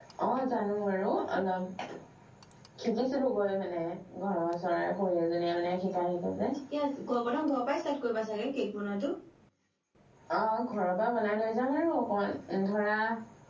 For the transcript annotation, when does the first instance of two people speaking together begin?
none

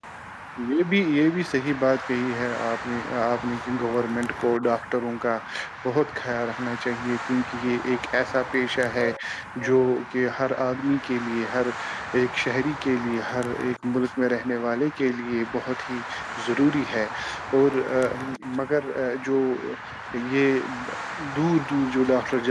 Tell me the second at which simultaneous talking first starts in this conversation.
none

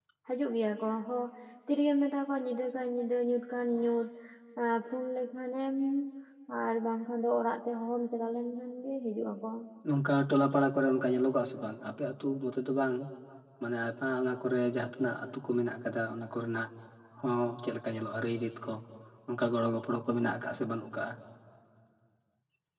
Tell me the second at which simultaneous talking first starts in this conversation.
none

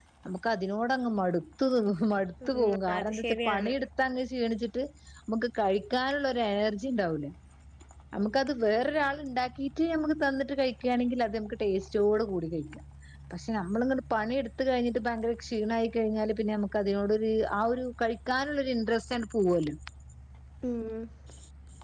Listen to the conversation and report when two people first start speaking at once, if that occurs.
2 s

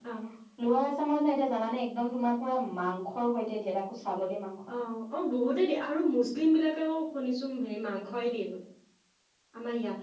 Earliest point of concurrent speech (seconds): none

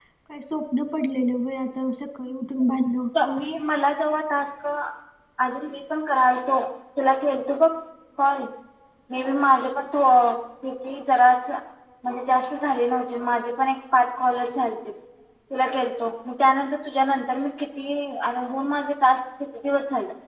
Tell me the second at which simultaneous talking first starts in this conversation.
none

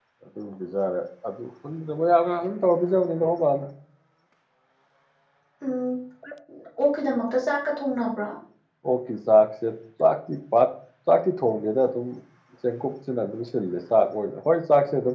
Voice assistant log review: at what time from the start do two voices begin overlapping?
none

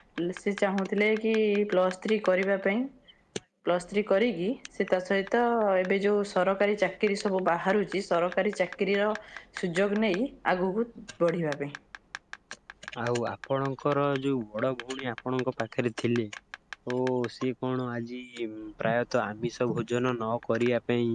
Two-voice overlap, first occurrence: none

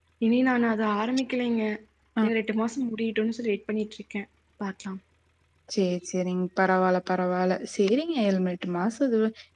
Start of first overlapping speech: none

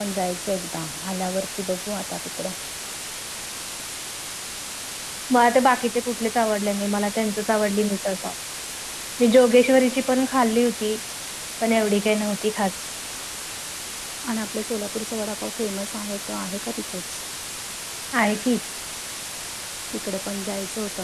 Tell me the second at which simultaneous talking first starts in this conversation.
none

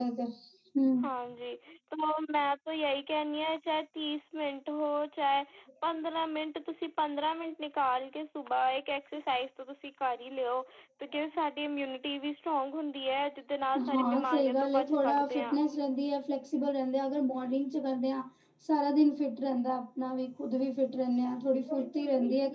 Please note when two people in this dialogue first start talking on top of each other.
14 s

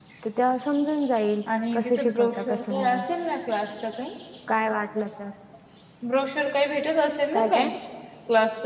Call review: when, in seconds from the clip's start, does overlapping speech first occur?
2 s

